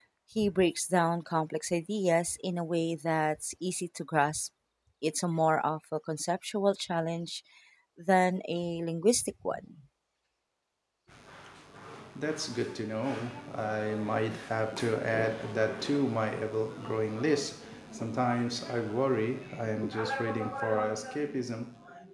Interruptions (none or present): none